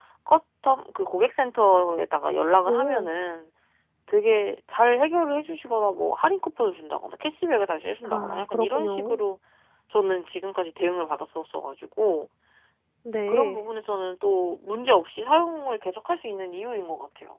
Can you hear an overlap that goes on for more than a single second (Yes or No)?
Yes